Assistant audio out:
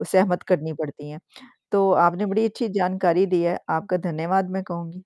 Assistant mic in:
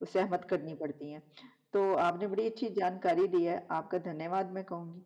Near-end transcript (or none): none